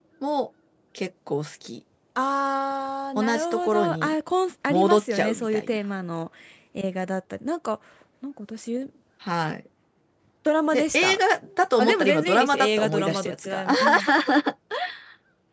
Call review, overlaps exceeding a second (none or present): present